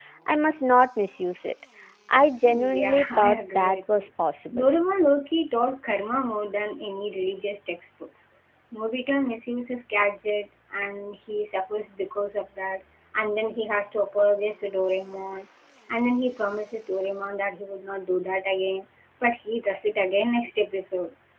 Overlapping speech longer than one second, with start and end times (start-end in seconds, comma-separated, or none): 2.7-4.0